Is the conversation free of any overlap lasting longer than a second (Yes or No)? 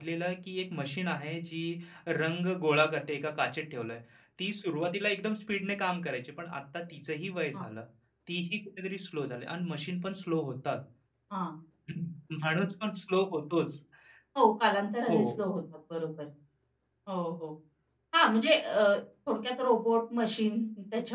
Yes